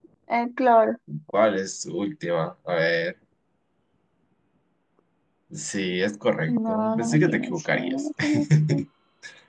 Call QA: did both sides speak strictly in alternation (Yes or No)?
No